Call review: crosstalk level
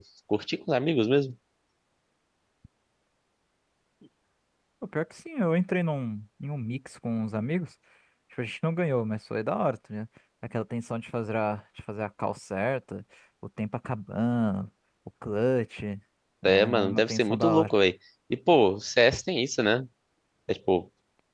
present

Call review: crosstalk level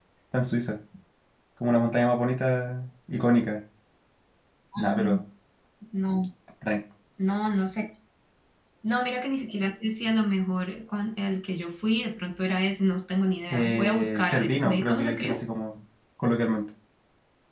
present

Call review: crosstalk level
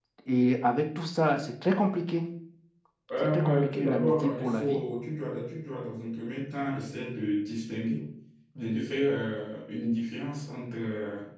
present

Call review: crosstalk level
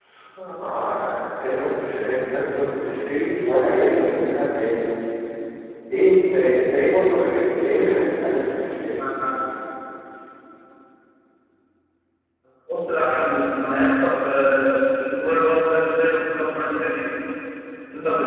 none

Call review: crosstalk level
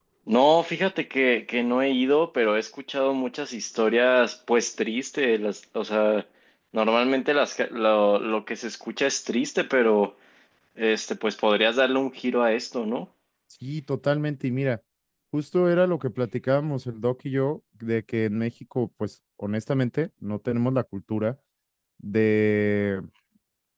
none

